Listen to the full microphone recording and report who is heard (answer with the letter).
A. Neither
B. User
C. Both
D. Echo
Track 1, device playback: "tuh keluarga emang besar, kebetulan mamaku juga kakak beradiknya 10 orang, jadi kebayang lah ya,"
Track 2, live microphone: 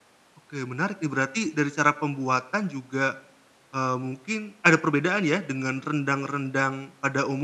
B